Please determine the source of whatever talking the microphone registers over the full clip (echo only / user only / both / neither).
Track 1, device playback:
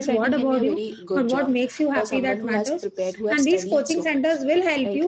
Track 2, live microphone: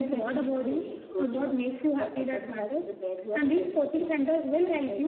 echo only